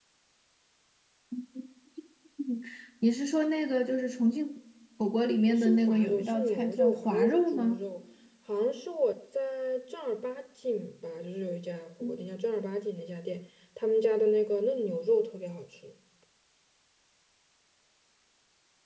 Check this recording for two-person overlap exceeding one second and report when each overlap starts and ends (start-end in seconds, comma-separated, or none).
5.5-7.8